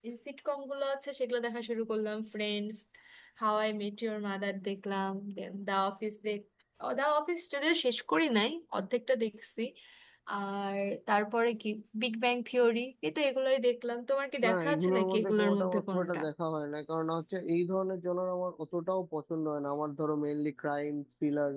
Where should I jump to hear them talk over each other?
14.4 s

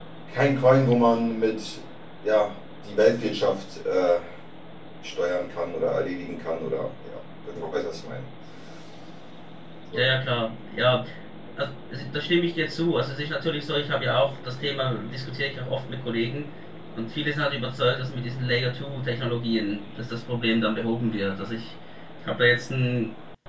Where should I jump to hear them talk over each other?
none

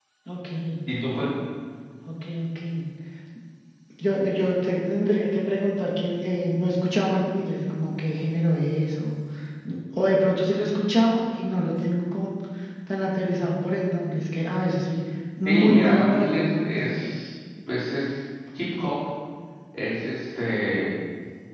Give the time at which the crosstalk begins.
15.4 s

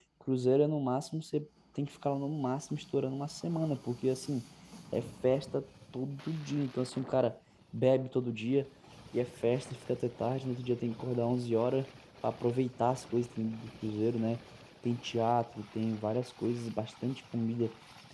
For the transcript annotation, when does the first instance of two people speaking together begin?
none

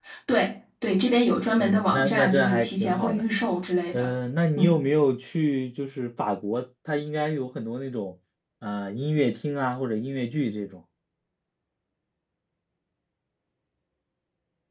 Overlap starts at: 1.6 s

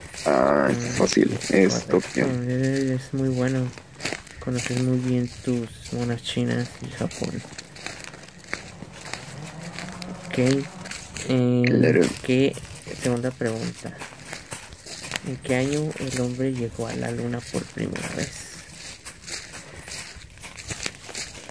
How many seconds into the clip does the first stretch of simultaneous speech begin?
0.7 s

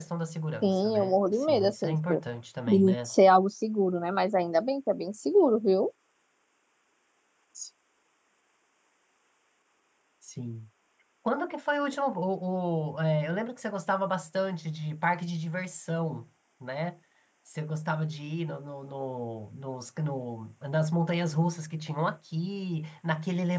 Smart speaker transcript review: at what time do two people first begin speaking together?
0.6 s

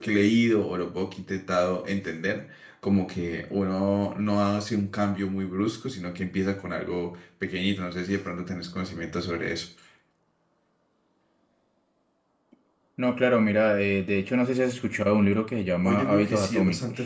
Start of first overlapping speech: 15.8 s

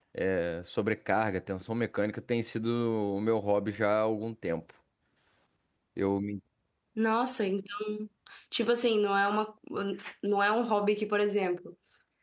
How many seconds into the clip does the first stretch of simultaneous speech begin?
none

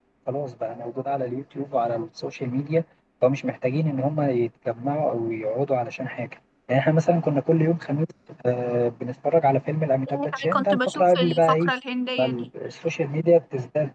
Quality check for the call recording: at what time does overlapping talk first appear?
10.1 s

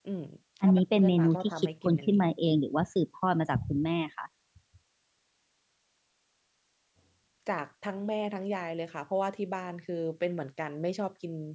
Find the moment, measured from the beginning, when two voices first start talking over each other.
0.6 s

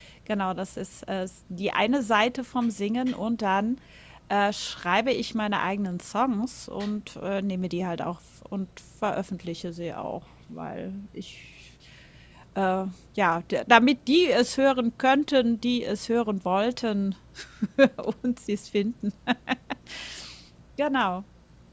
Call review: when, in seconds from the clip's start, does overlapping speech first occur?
none

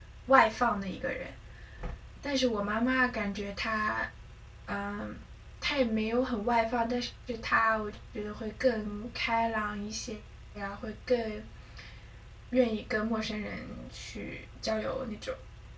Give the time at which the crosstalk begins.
none

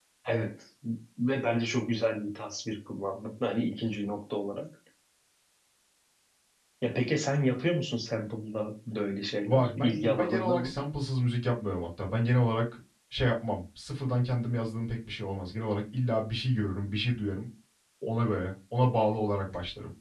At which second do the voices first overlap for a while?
9.4 s

